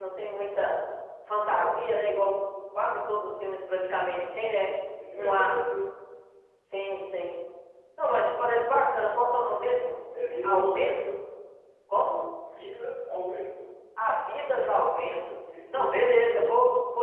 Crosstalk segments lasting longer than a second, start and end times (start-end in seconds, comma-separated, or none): none